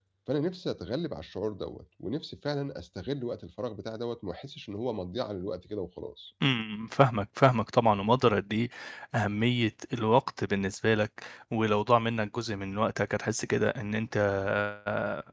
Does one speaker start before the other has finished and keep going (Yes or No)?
No